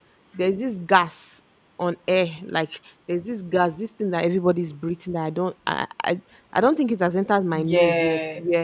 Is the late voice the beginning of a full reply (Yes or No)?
No